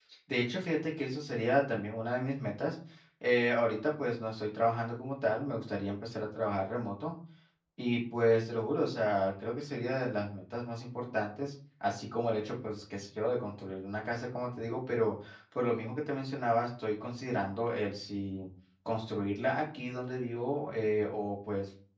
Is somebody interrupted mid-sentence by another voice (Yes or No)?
No